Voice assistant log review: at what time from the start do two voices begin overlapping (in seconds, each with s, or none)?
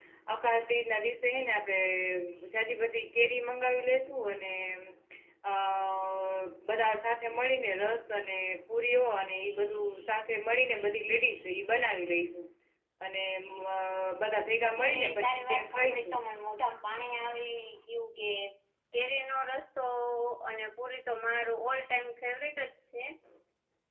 14.8 s